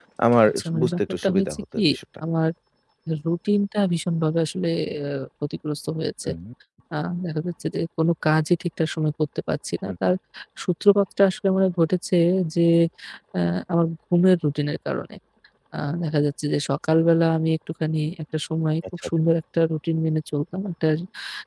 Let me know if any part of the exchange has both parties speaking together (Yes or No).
Yes